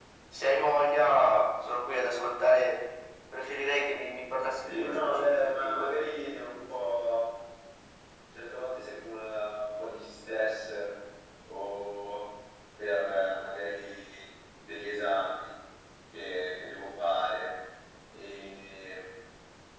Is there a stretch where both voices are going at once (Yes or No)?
Yes